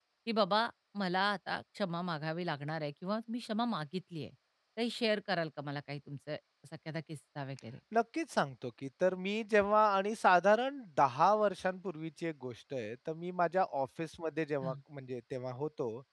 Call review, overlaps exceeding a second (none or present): none